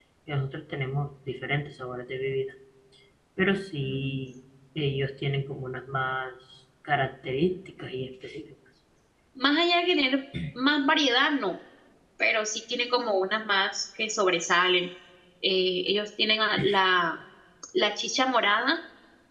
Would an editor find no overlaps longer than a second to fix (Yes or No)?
Yes